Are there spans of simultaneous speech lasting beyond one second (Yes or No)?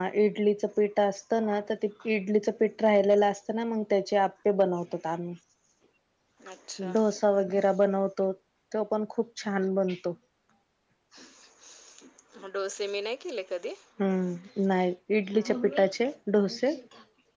No